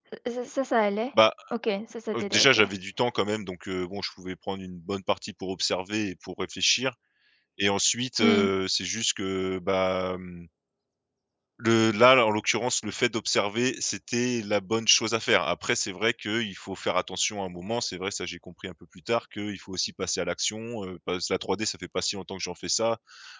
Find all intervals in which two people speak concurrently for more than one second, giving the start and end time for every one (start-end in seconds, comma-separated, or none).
none